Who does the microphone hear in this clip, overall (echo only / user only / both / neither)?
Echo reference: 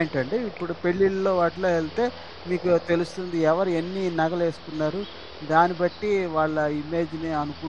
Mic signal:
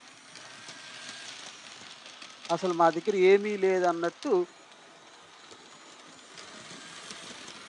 user only